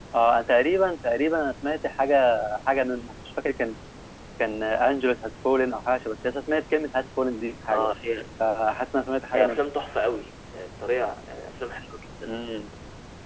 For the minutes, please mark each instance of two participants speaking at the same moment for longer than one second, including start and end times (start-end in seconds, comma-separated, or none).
none